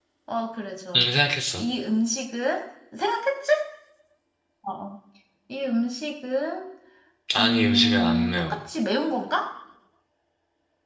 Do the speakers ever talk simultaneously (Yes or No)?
Yes